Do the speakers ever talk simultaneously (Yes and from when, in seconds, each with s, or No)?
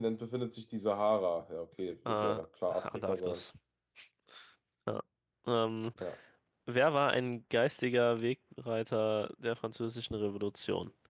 Yes, from 2.0 s